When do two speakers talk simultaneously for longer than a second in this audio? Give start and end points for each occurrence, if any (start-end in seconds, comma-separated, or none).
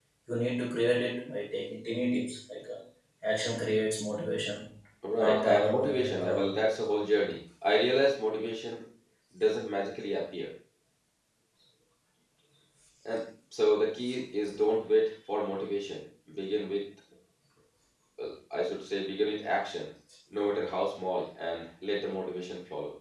5.2-6.5